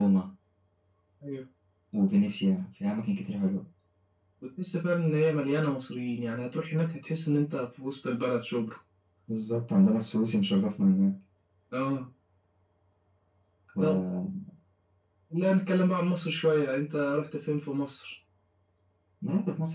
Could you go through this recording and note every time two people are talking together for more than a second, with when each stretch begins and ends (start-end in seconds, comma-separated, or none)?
none